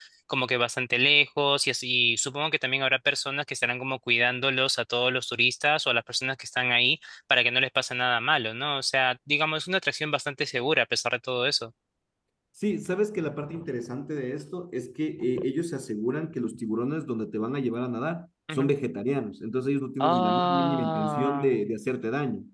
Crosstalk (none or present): present